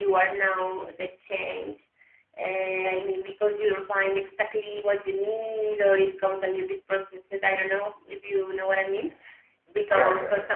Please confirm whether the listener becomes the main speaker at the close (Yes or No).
No